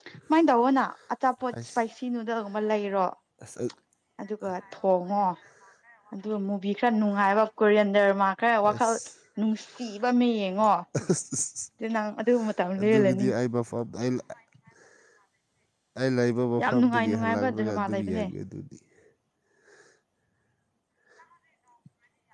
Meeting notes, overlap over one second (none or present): present